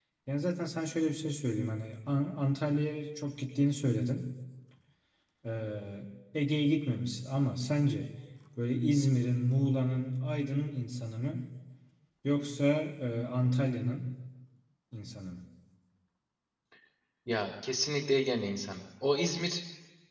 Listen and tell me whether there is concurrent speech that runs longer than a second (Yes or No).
No